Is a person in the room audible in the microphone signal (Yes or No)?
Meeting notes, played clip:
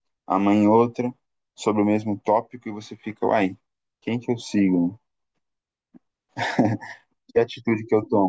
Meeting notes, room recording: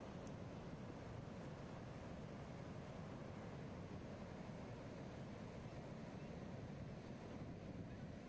No